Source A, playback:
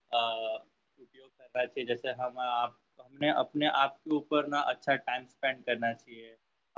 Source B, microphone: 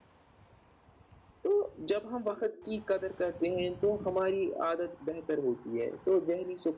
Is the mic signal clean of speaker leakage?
Yes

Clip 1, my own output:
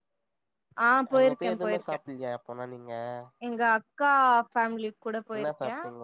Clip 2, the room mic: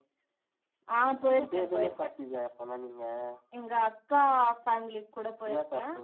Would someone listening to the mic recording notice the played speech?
Yes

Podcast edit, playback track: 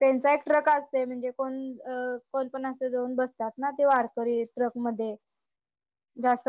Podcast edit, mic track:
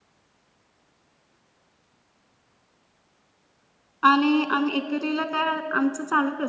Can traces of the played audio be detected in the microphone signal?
No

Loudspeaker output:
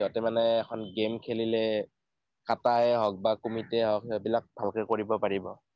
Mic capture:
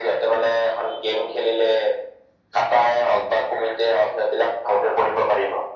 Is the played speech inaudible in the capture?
No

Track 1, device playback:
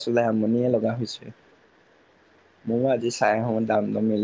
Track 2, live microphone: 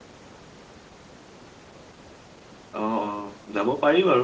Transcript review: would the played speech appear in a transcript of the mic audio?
No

